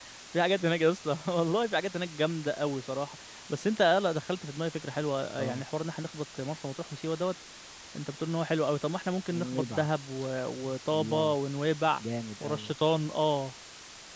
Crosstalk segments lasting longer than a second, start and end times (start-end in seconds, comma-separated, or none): none